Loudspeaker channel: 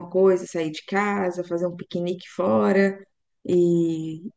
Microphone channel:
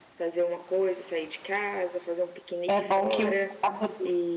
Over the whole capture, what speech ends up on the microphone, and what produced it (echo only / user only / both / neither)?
both